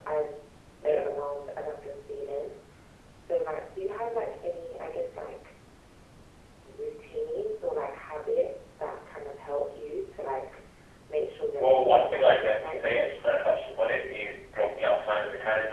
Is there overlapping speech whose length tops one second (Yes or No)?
Yes